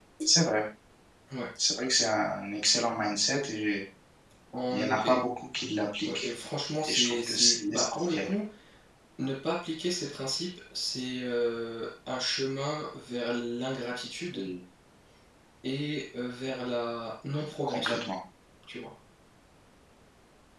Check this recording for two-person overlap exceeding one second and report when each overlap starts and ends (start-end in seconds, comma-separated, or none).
6.9-8.3